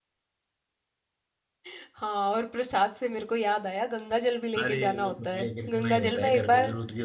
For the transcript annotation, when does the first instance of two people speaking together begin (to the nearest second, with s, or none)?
5 s